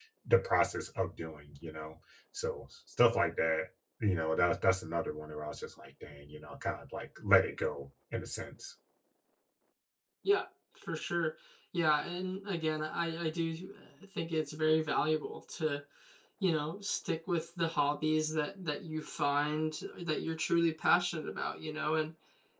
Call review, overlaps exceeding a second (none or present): none